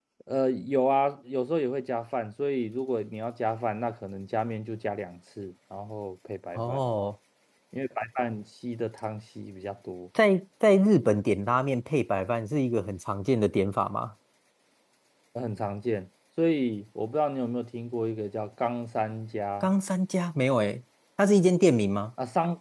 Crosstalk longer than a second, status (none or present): none